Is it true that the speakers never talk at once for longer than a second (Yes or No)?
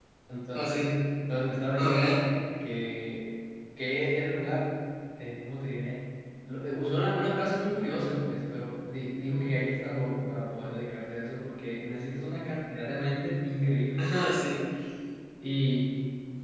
Yes